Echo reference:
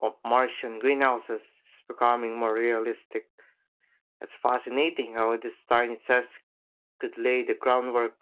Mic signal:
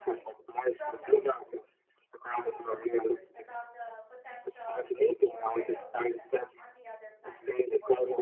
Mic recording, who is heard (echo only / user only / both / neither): both